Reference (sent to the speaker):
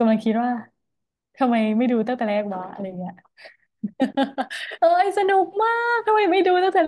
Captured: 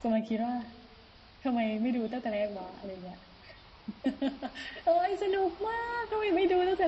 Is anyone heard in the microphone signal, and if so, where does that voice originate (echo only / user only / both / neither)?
echo only